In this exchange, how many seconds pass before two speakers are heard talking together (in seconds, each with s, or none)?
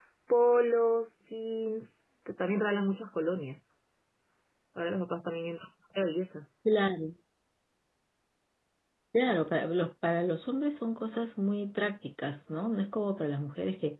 none